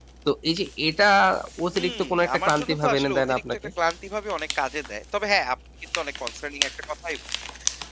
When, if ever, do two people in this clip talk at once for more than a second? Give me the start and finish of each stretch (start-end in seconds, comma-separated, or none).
1.7-3.6